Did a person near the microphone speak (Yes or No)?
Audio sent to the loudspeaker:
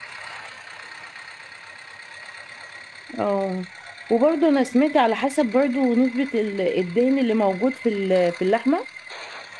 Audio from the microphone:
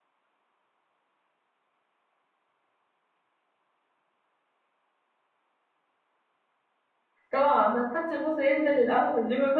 Yes